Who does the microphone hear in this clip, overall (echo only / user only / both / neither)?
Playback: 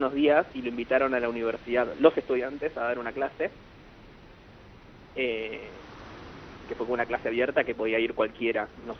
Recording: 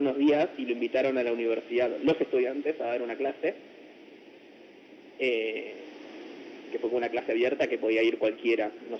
echo only